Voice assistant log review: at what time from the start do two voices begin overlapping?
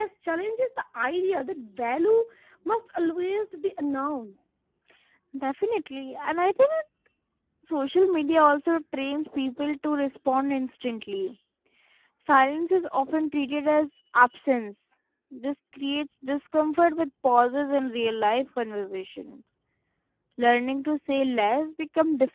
none

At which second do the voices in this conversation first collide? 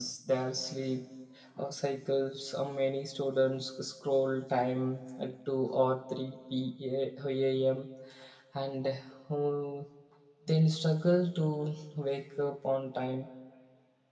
none

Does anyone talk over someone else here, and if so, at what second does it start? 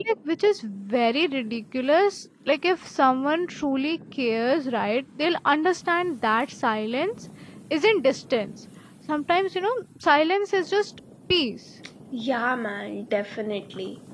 none

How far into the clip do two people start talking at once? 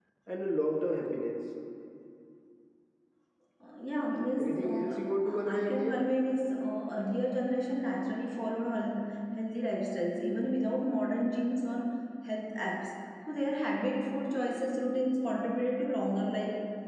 4 s

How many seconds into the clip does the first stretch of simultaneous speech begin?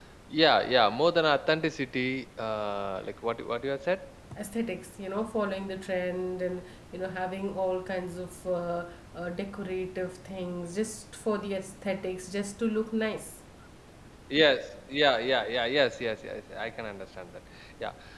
none

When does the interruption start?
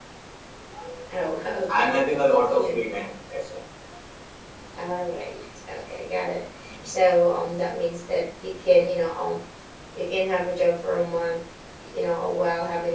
2 s

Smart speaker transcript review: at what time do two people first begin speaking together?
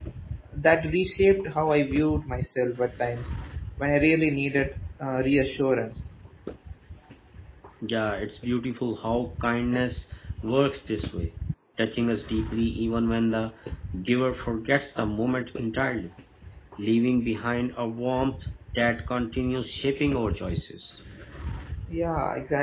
none

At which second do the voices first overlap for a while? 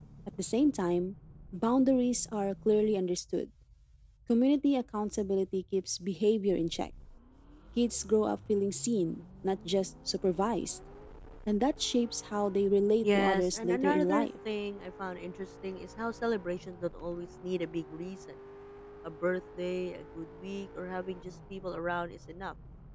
13 s

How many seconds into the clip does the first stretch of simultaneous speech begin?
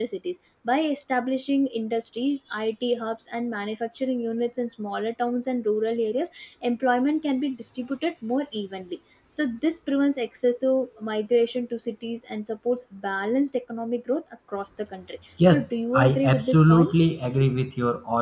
15 s

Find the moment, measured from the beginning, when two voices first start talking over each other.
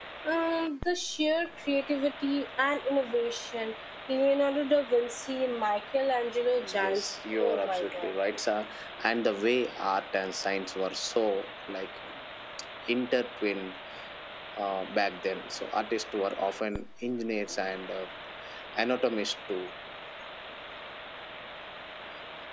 7 s

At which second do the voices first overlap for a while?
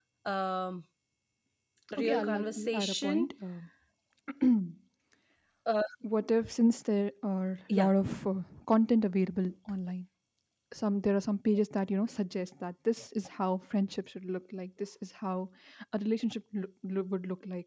2 s

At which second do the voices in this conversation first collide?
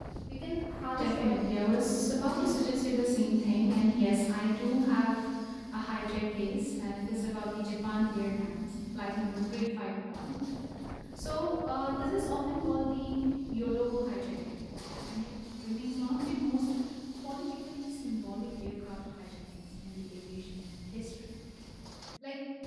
1 s

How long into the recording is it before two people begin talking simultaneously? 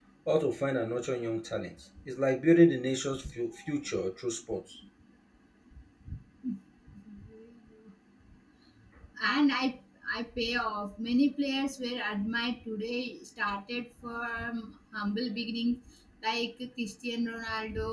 none

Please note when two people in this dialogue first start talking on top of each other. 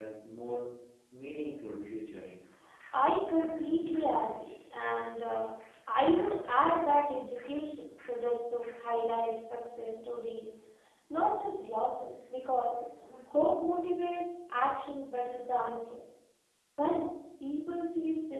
none

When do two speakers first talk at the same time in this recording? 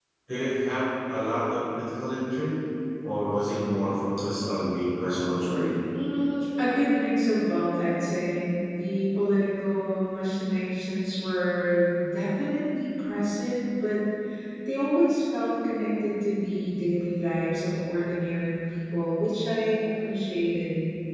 none

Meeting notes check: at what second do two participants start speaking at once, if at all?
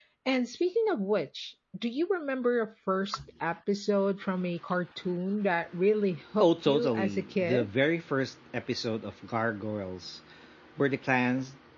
6 s

